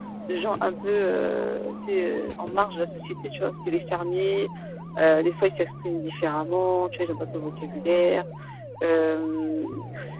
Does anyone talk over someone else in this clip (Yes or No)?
No